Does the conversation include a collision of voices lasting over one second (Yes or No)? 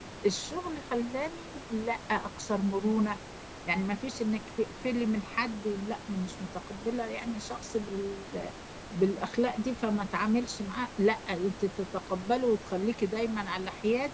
No